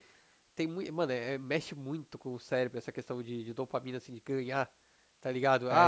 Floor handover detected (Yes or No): No